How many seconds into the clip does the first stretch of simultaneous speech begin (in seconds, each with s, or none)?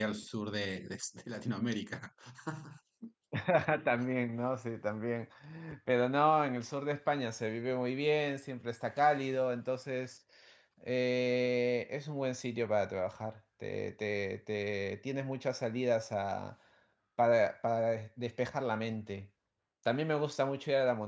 none